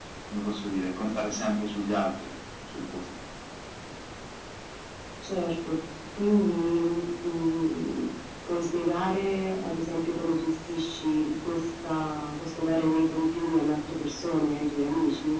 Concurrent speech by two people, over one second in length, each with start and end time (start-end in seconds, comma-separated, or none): none